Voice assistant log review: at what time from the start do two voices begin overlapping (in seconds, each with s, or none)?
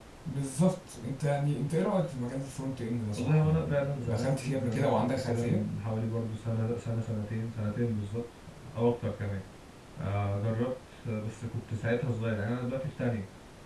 3.2 s